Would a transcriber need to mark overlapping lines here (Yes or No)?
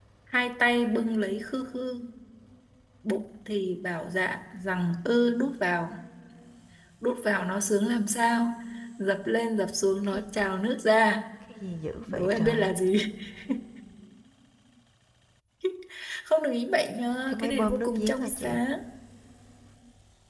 Yes